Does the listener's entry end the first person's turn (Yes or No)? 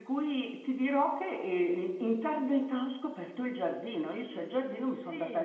No